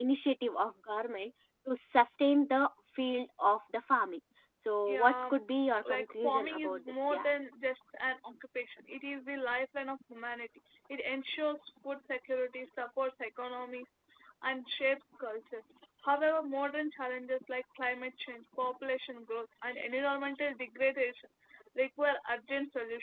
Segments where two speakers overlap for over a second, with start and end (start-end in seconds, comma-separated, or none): 5.9-7.3